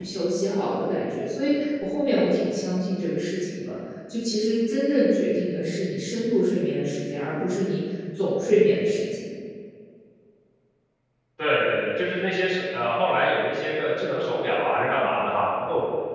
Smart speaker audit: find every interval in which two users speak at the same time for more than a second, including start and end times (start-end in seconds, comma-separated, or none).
none